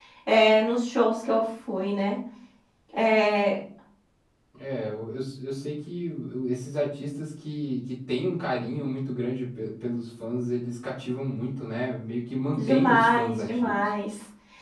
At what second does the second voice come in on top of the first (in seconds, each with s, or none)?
12.6 s